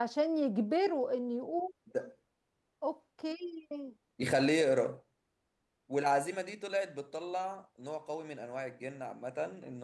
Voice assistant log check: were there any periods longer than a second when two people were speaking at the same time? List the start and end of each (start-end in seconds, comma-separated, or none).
none